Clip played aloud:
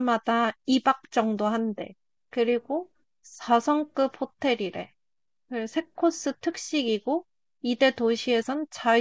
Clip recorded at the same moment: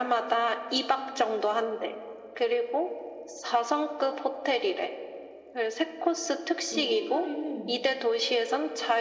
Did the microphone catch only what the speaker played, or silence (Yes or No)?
No